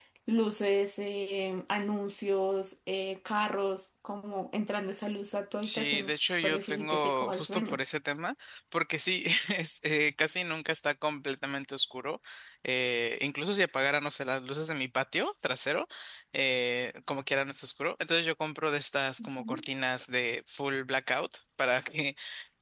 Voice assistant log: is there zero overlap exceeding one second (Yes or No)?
No